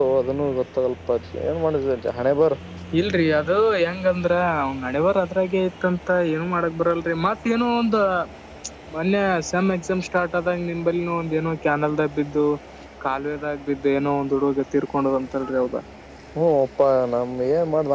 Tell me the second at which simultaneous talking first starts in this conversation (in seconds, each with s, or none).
none